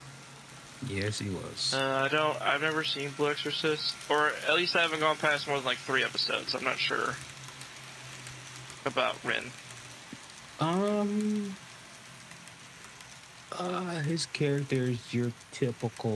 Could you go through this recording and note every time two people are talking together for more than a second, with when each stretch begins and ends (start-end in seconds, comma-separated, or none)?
none